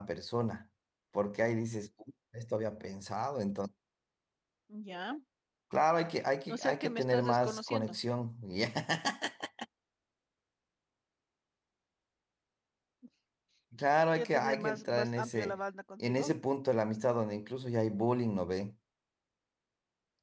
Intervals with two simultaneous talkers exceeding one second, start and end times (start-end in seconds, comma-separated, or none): 6.5-7.9, 14.2-15.6